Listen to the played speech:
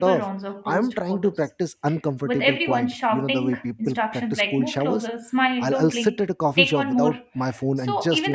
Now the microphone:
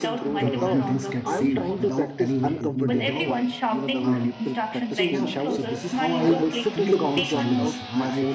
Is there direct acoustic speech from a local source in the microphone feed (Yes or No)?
Yes